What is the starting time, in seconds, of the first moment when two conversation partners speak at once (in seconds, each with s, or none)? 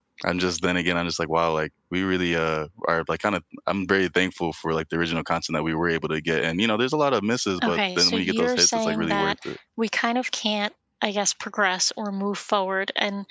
7.6 s